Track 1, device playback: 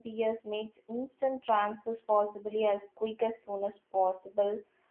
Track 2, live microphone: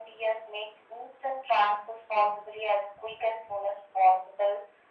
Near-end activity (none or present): none